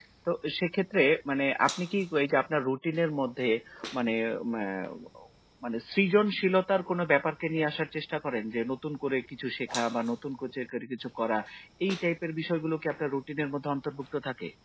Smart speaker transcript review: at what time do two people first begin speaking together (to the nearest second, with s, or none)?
none